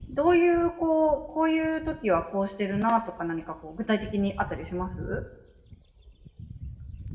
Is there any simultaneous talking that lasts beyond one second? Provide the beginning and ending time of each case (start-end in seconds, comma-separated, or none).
none